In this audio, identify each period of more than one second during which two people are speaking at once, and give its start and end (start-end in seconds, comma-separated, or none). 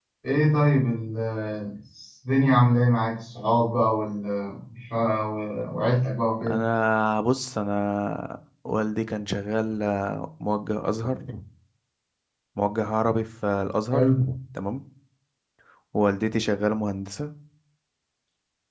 none